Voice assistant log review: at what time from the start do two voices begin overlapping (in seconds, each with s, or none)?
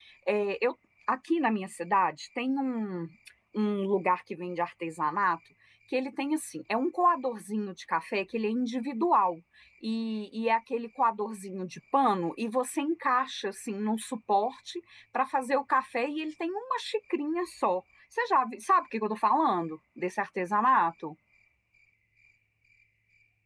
none